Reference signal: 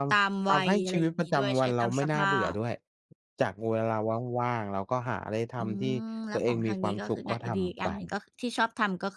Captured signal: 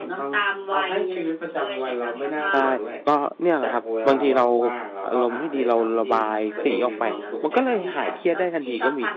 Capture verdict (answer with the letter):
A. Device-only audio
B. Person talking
B